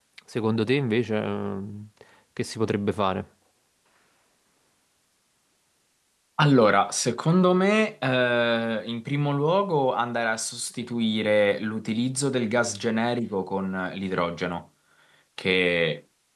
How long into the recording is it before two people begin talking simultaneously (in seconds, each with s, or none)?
none